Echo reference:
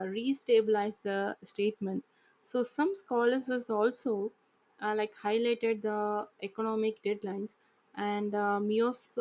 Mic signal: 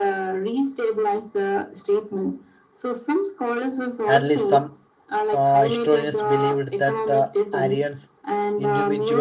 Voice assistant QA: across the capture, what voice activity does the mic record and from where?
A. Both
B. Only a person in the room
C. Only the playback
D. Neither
A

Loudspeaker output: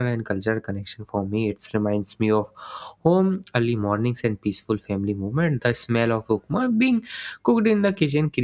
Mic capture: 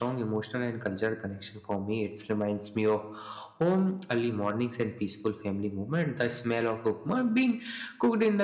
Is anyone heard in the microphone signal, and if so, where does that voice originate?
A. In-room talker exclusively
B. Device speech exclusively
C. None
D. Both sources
B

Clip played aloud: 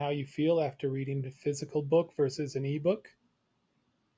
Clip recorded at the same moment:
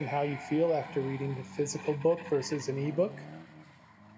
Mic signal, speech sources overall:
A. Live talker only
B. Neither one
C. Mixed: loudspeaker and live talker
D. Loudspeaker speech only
D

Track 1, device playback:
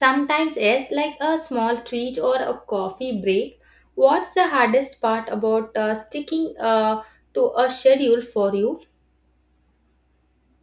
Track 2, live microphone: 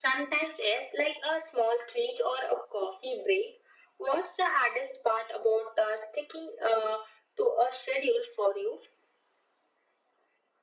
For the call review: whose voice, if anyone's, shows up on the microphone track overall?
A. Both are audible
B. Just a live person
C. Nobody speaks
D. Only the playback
D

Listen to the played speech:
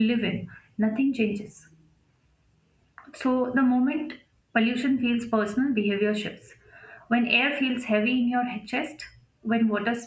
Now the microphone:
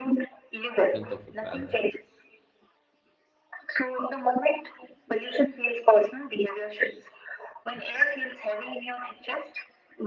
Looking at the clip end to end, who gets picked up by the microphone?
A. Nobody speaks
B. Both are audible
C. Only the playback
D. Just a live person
B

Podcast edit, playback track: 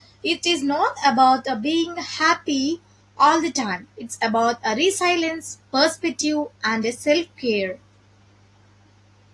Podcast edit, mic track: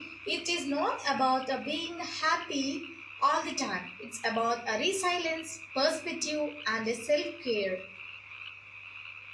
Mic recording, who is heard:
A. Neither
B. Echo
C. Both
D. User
B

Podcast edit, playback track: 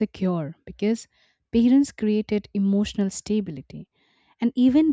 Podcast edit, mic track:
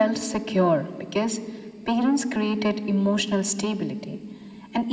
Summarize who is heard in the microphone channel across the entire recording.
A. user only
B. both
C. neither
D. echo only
D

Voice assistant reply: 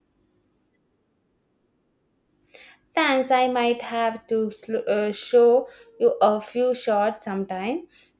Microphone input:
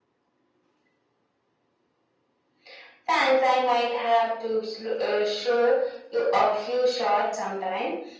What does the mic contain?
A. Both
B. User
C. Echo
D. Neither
C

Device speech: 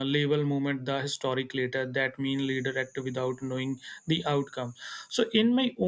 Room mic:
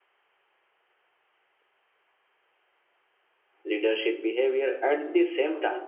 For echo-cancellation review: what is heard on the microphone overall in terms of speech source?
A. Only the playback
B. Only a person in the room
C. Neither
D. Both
B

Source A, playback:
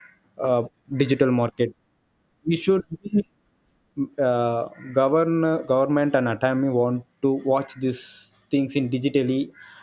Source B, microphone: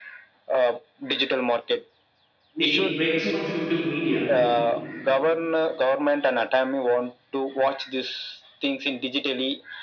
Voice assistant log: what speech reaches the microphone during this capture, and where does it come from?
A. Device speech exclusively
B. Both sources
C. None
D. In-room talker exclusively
B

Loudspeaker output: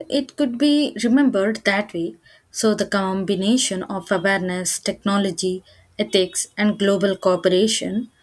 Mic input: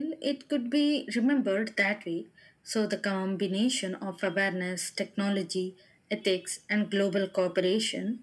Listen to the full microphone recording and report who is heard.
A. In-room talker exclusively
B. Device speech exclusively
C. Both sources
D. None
B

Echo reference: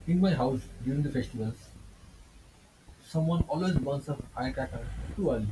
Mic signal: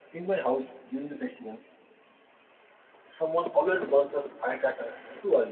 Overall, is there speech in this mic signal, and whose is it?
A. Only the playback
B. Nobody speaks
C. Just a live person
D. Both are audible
A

